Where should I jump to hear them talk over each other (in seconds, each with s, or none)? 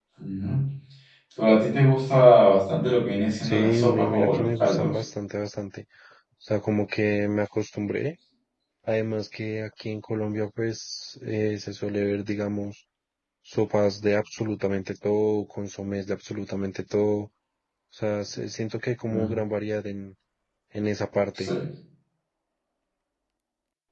3.4 s